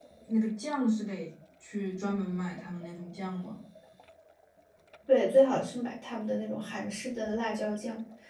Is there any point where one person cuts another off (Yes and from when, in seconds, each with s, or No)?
No